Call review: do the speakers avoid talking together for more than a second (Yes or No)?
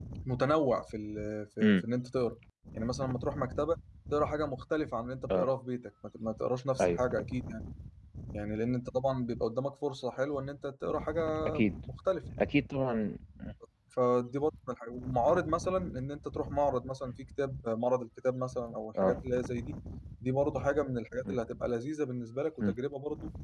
Yes